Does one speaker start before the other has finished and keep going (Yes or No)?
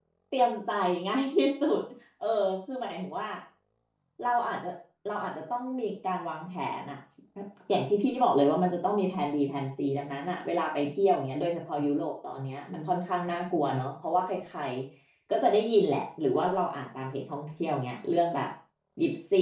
No